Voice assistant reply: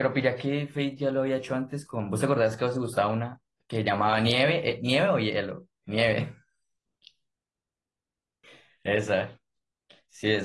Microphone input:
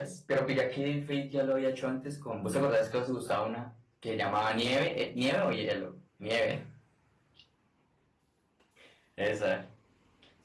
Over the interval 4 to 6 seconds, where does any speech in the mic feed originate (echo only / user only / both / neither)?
echo only